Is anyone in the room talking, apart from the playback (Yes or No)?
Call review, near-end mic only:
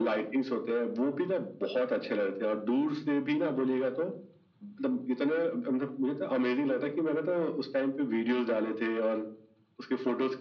No